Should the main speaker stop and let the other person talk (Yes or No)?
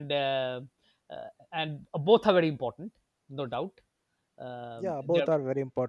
Yes